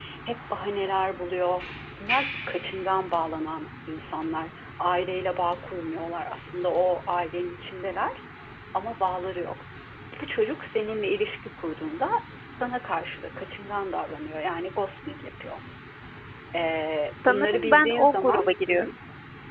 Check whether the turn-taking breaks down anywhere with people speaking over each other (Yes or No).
Yes